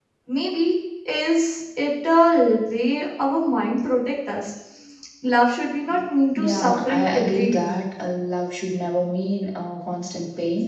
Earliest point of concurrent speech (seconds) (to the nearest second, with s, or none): 6 s